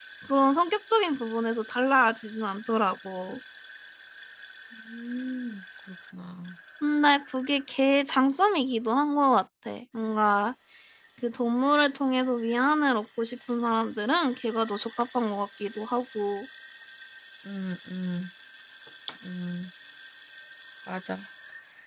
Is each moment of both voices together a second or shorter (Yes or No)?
Yes